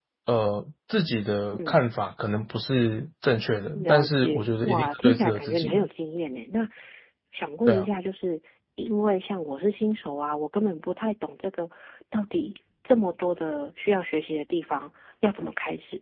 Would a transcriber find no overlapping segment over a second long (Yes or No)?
No